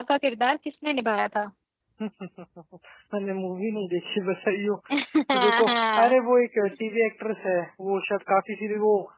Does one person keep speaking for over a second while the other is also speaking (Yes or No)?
No